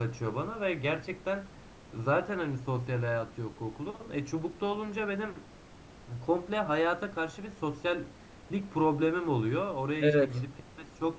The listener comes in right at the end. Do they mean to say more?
No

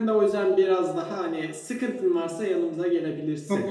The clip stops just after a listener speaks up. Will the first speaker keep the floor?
No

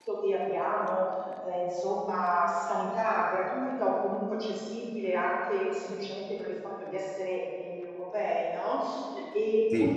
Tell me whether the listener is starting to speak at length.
No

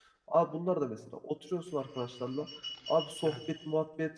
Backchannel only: Yes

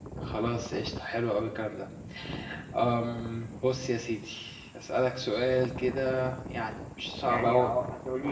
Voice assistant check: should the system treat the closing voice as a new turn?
Yes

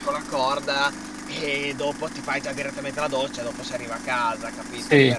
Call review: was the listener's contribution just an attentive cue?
No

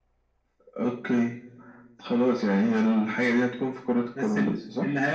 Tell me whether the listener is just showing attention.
No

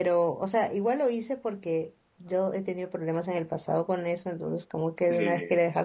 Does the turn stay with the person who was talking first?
Yes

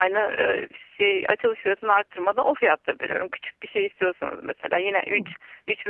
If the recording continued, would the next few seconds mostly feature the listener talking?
No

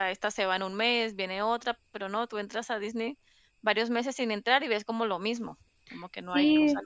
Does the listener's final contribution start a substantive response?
Yes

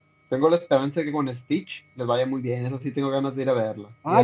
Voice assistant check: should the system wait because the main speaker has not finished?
No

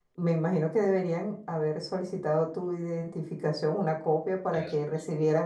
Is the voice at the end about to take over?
No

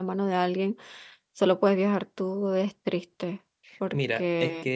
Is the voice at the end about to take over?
Yes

